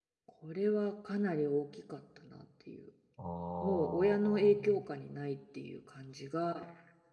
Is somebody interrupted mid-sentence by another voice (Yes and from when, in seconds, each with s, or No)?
Yes, from 3.6 s